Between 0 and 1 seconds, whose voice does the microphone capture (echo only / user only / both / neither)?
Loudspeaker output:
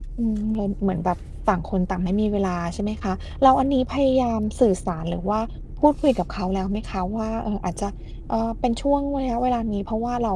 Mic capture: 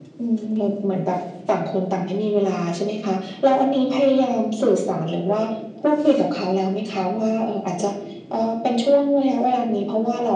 echo only